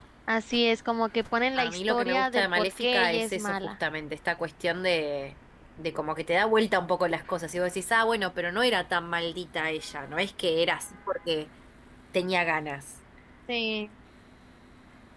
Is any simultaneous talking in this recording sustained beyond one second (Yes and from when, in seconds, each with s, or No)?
Yes, from 1.6 s